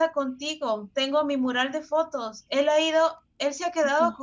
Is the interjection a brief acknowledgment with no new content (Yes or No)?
Yes